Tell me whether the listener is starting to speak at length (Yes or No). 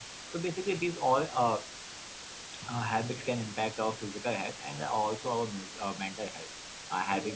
No